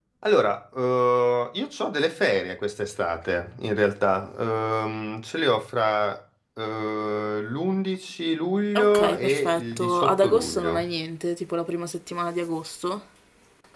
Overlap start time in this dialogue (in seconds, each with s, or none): 8.8 s